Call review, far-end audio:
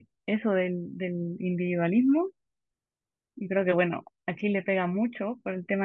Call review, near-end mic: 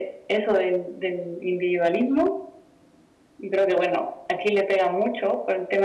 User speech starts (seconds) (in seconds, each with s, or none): none